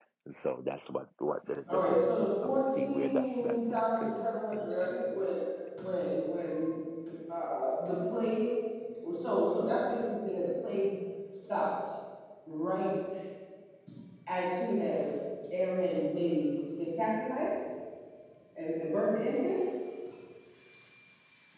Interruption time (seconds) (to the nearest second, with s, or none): 2 s